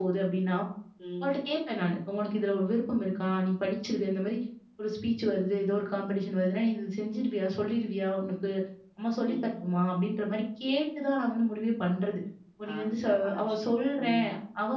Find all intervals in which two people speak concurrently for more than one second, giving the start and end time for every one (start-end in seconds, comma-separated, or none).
12.7-14.2